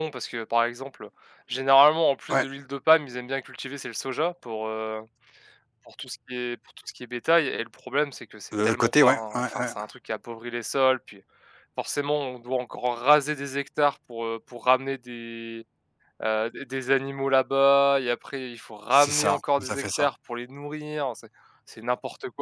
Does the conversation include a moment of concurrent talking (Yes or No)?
Yes